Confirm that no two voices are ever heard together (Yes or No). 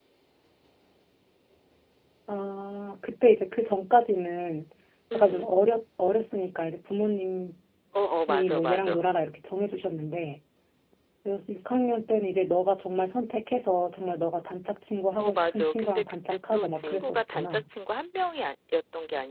No